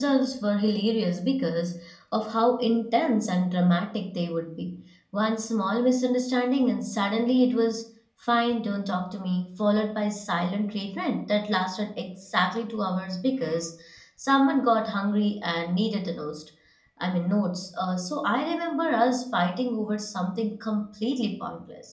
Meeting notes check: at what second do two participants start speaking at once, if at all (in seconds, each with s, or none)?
none